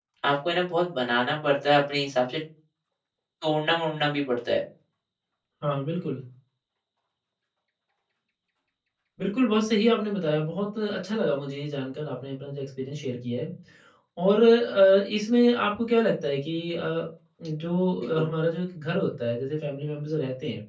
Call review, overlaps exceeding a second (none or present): none